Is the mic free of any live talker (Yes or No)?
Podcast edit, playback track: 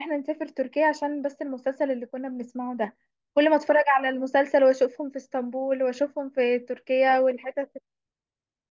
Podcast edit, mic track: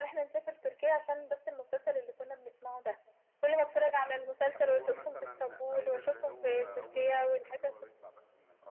No